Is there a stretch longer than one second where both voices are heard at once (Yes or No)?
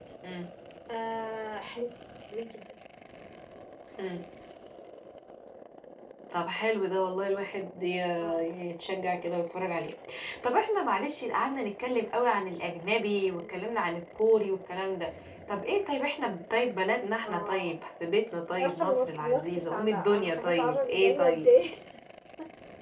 Yes